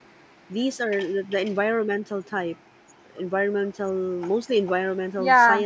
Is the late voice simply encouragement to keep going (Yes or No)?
No